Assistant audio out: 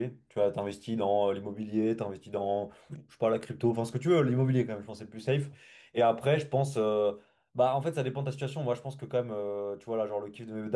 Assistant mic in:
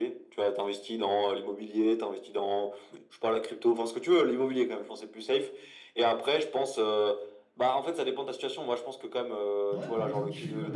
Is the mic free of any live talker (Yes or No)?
No